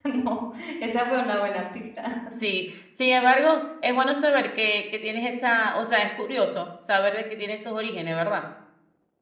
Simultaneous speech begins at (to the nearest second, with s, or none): none